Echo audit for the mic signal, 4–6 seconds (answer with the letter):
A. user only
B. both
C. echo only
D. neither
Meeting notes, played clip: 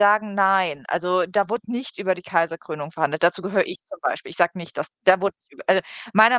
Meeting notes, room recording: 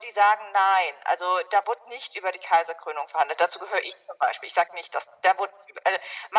C